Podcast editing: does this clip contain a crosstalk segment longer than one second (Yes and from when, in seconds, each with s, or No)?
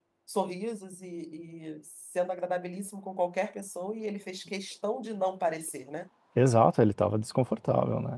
No